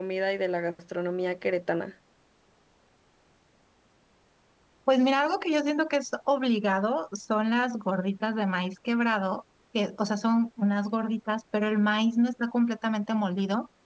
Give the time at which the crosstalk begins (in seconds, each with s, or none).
none